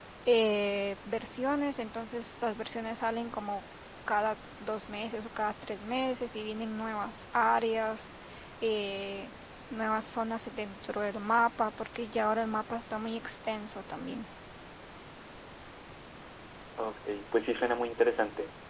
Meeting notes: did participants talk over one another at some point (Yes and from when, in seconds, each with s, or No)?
No